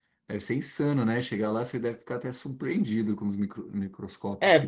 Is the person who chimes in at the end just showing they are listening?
No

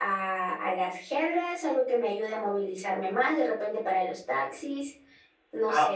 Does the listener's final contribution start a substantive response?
Yes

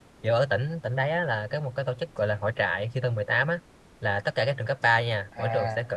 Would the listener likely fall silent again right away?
Yes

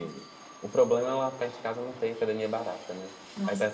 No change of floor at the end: No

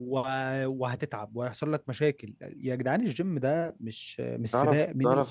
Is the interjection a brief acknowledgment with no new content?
No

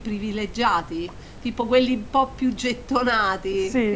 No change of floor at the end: No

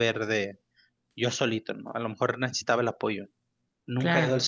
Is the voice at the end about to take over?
No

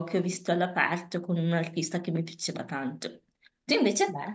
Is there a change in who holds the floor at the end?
No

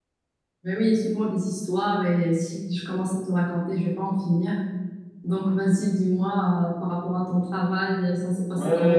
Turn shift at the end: Yes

